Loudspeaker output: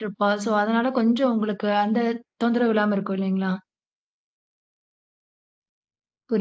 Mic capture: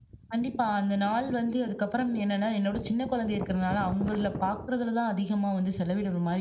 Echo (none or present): none